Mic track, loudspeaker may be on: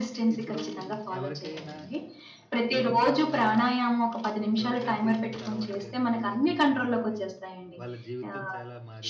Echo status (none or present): present